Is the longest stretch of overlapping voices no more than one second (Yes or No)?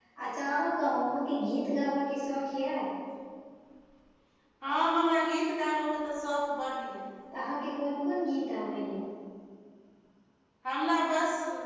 Yes